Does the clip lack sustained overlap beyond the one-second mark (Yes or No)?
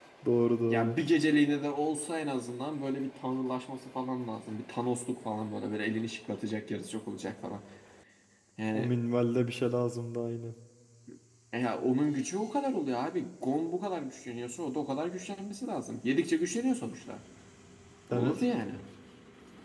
Yes